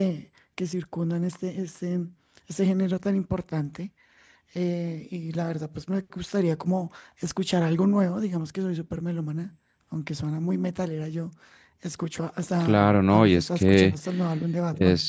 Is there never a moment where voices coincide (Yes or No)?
No